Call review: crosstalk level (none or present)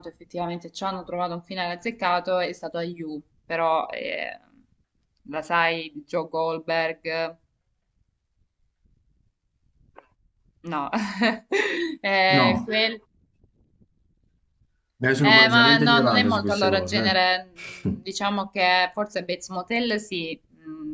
present